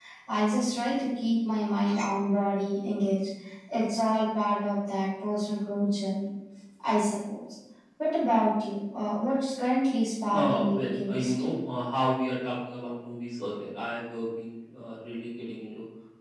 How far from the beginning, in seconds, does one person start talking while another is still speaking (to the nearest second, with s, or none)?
10 s